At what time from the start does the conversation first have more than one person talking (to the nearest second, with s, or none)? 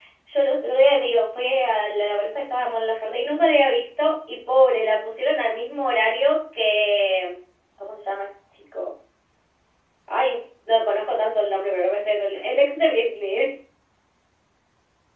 none